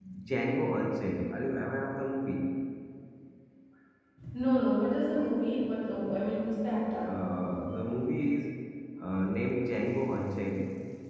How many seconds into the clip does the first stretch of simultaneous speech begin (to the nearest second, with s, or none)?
none